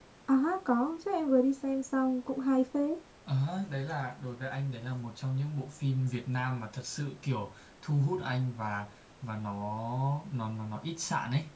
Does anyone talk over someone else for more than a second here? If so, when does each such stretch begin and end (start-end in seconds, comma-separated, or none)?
none